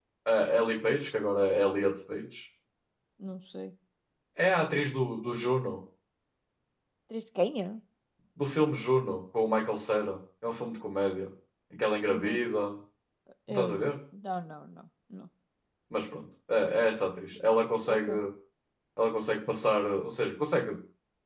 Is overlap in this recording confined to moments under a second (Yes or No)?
Yes